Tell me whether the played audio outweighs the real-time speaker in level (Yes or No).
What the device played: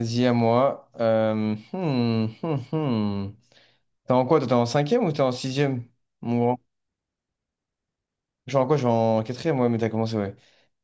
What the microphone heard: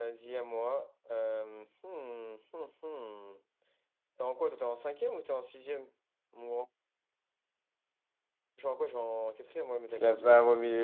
No